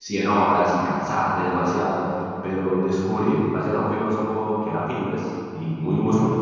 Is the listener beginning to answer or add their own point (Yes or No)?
No